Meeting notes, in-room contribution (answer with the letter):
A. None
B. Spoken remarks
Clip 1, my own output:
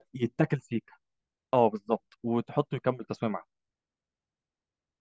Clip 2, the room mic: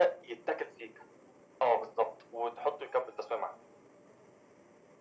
A